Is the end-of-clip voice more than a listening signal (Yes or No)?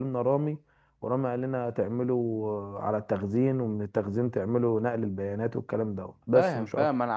Yes